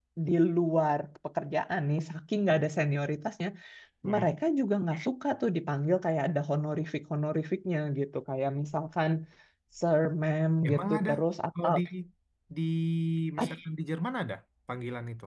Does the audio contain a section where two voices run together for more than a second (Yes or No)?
No